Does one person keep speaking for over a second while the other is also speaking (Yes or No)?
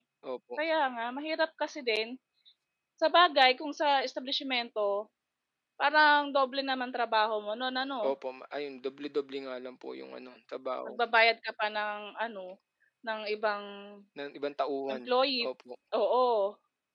No